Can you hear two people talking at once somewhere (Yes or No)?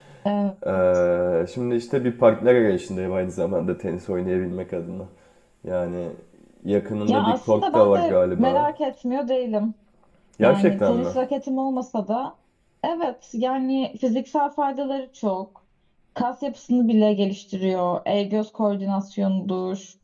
Yes